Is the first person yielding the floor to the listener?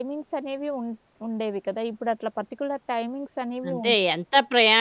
Yes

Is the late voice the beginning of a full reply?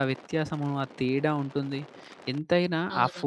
No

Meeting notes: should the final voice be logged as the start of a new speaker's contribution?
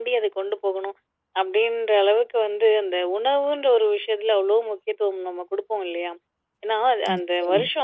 No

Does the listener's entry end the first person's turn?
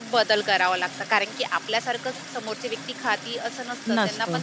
No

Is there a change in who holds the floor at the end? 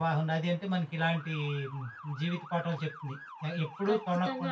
Yes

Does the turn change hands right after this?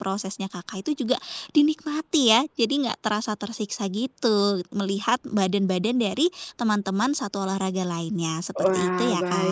Yes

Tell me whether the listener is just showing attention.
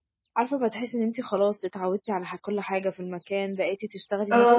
Yes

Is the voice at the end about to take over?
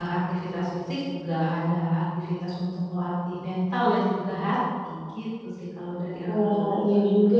Yes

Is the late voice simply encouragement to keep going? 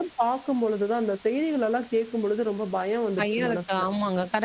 No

